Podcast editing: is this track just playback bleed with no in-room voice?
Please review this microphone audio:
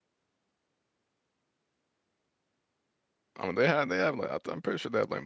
No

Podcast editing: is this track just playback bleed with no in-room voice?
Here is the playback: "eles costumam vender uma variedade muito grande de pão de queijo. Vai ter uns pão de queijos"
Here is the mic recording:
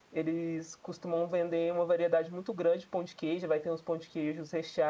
Yes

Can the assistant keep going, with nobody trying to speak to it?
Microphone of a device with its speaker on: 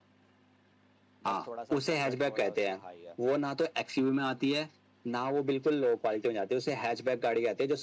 No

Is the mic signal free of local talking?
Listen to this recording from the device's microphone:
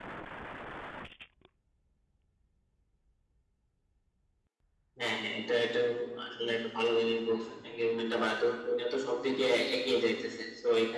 Yes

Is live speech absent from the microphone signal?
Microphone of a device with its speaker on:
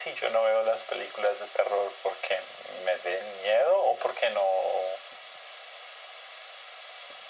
Yes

